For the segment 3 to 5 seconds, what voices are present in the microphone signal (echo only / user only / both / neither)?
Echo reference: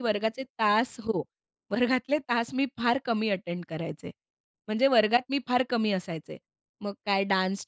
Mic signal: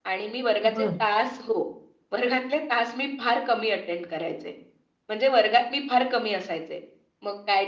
echo only